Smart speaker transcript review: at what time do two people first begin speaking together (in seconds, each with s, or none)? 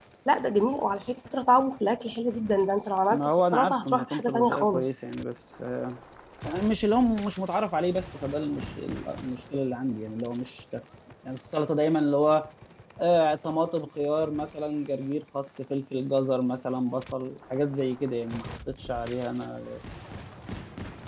3.1 s